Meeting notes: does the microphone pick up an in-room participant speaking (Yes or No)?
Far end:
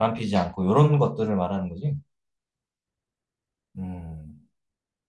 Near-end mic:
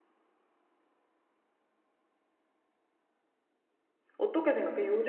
Yes